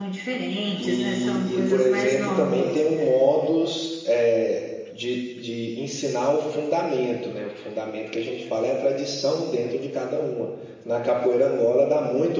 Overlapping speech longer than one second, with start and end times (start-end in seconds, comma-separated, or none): 0.8-2.8